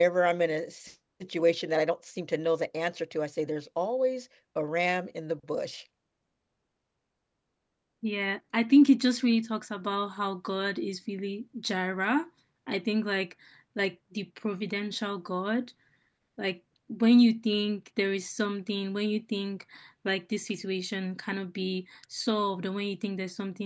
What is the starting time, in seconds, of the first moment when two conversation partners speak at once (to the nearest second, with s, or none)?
none